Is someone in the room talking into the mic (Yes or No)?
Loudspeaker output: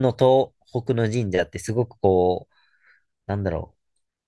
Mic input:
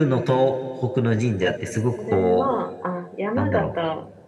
Yes